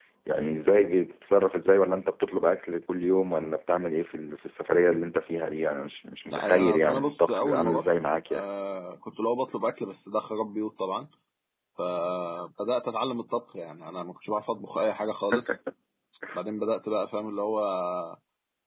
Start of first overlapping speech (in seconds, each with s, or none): 6.3 s